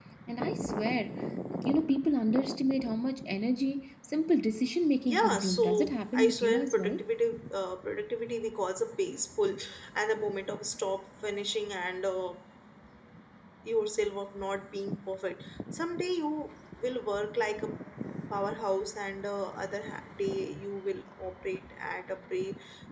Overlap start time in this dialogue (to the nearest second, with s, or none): 5 s